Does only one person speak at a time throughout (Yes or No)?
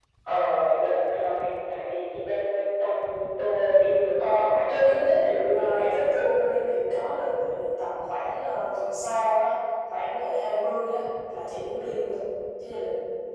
No